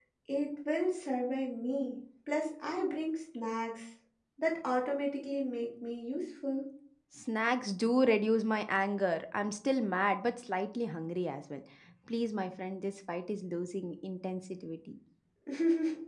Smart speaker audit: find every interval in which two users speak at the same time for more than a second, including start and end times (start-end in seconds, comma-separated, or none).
none